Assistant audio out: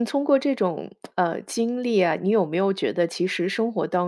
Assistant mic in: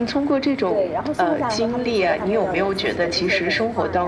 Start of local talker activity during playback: 0.7 s

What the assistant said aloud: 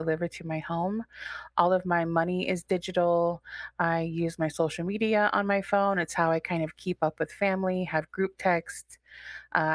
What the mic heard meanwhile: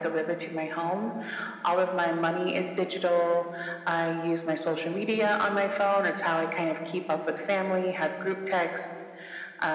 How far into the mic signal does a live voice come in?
none

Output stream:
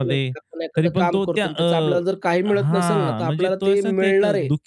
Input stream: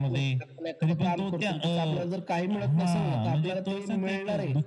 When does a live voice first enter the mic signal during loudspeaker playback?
none

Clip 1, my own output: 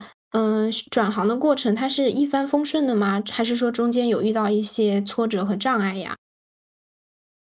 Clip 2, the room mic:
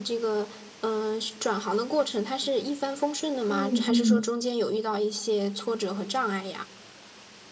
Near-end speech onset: 3.4 s

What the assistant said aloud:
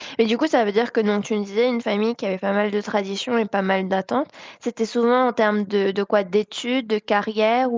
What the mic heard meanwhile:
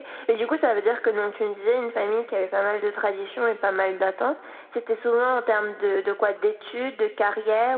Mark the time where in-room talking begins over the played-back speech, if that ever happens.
none

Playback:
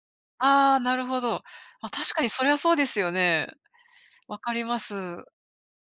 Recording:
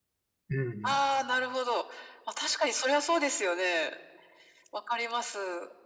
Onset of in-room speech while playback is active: 0.5 s

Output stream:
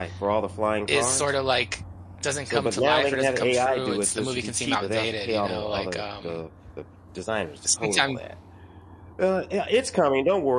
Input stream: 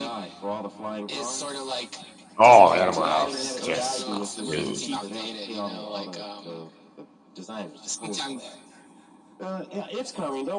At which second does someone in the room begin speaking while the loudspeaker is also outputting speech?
2.4 s

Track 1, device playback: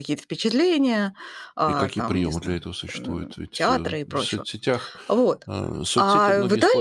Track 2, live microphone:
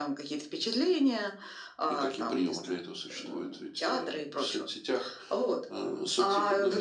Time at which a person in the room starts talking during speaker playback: none

